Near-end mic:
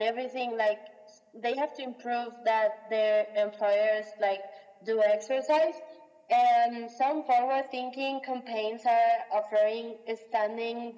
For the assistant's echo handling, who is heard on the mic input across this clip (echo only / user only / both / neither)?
echo only